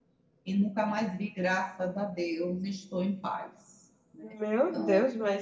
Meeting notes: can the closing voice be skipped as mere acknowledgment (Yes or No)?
No